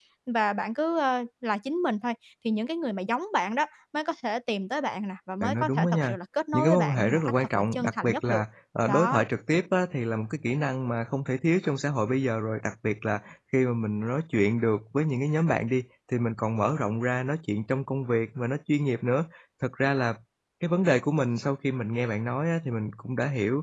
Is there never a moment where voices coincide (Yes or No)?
No